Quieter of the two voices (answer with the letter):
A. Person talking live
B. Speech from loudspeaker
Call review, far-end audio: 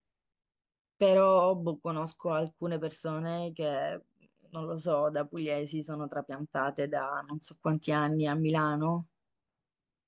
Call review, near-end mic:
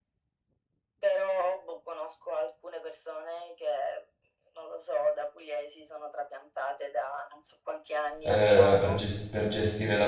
B